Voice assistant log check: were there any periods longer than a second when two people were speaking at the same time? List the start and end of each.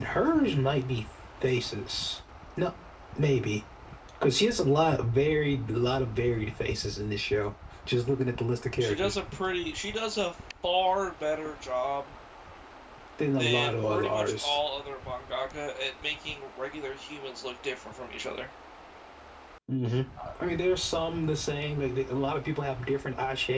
13.4-14.6

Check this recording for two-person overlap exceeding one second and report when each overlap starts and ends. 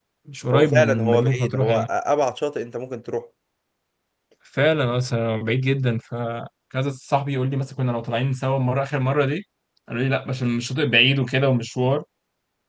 0.5-1.9

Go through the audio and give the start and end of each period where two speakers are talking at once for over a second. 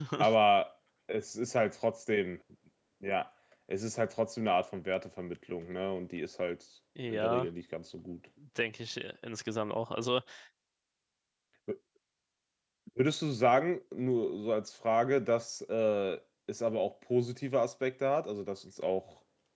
none

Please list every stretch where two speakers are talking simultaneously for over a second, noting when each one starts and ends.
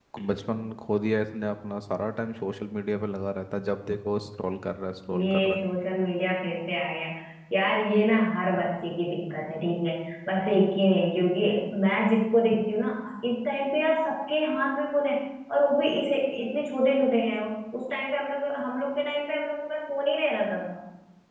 none

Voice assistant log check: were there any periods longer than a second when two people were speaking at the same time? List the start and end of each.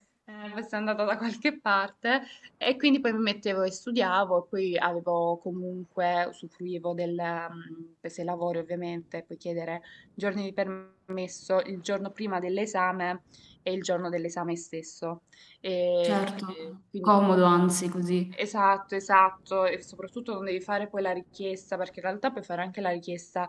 none

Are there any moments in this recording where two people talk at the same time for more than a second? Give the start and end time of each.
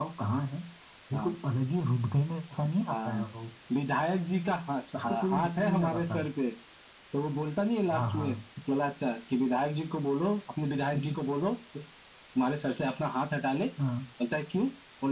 5.0-6.2

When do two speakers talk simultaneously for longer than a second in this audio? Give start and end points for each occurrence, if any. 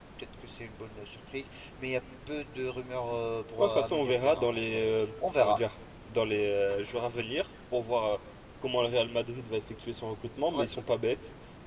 3.6-4.8

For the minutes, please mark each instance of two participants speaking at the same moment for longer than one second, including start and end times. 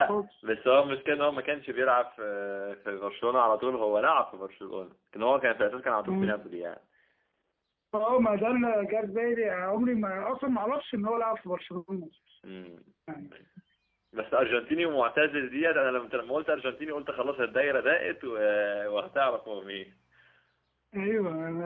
none

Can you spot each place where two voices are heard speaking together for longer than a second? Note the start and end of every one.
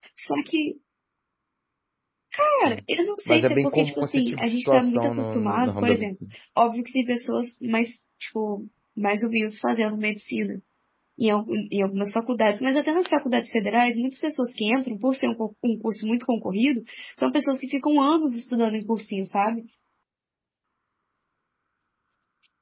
3.3-6.1

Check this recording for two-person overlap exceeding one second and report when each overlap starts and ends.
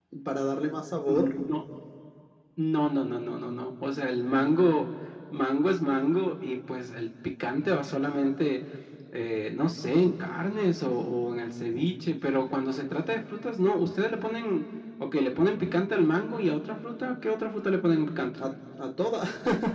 none

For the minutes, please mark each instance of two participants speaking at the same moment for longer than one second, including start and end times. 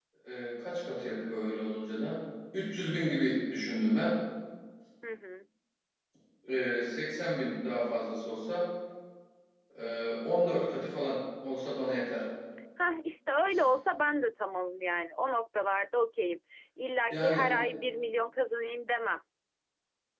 none

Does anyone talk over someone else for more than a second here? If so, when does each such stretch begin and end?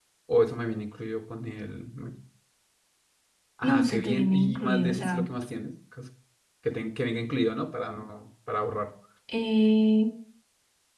3.6-5.2

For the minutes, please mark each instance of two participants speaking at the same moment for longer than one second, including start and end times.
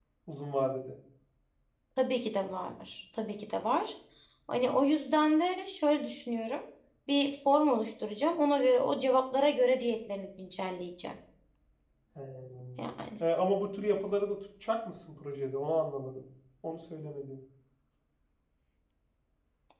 none

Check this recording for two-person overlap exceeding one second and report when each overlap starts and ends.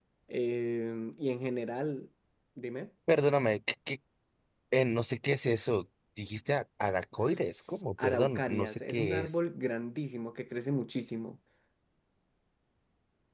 8.0-9.4

